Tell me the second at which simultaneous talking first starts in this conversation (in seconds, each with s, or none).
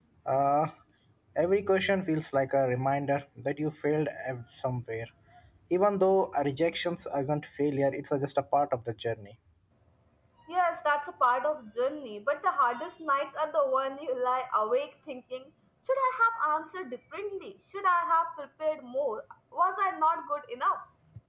none